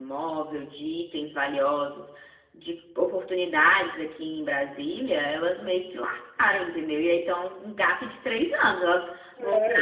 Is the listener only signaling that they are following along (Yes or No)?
No